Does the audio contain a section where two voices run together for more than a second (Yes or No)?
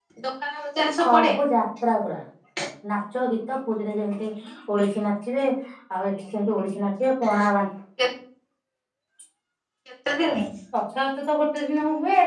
No